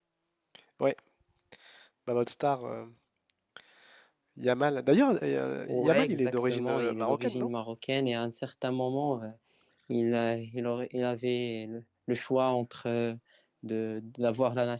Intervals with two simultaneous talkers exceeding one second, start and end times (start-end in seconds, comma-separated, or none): 5.7-7.5